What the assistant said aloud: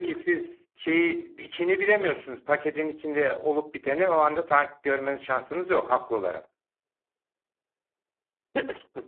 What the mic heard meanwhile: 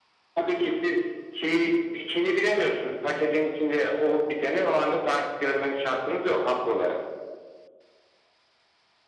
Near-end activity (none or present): none